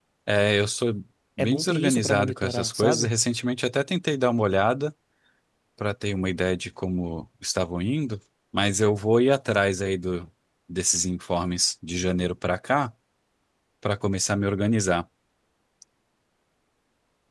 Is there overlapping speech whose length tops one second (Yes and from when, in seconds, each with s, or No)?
Yes, from 1.4 s